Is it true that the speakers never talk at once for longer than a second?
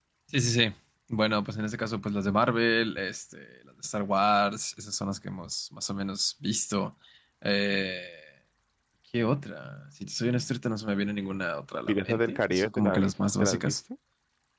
No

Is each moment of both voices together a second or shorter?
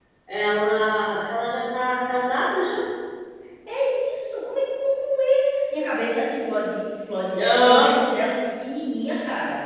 Yes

